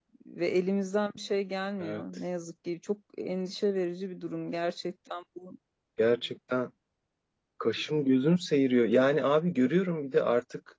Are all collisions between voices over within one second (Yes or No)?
Yes